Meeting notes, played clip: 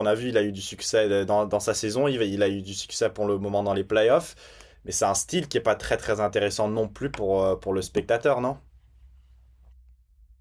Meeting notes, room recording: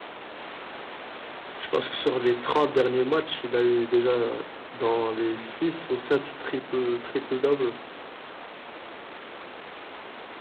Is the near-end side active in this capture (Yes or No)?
Yes